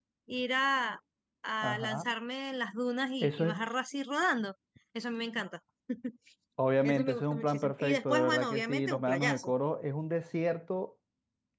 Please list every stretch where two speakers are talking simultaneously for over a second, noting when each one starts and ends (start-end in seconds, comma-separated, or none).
6.8-9.5